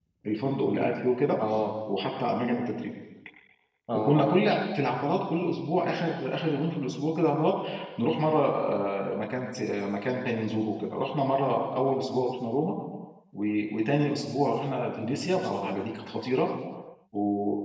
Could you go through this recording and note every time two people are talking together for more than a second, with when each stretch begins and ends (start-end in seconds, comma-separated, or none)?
none